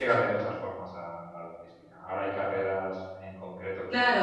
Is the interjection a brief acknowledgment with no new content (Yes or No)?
No